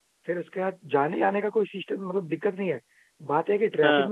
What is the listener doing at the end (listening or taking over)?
listening